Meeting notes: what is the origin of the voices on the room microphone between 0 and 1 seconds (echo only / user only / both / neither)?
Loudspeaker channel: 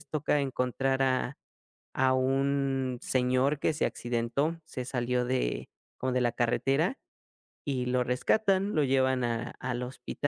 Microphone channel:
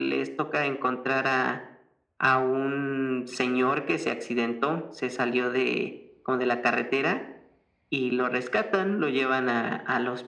echo only